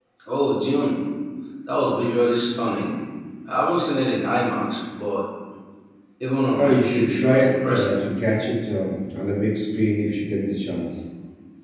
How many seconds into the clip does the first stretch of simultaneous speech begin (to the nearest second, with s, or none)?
7 s